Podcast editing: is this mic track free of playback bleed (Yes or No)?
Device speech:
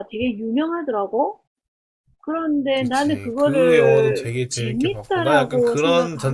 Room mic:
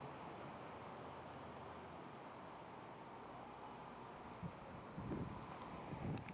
Yes